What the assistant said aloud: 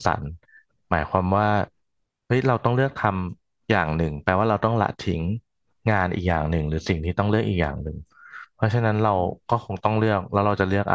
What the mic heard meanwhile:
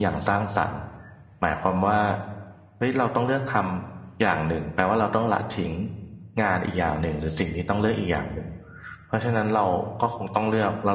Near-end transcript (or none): none